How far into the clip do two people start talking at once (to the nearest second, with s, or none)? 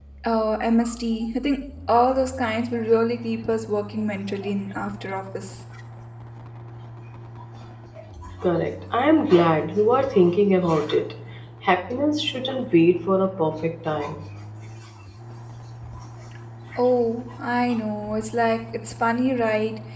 none